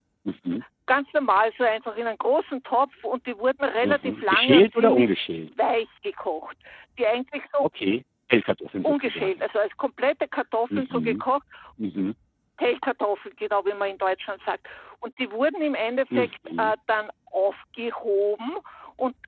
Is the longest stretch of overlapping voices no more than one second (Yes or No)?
No